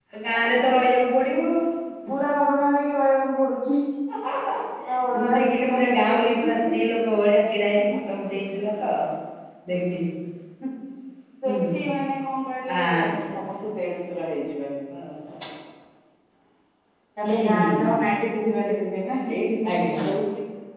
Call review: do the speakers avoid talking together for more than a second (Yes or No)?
No